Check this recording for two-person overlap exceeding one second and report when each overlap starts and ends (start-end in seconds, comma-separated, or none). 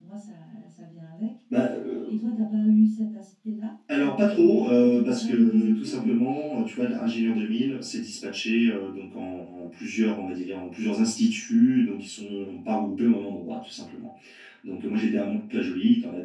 4.0-6.1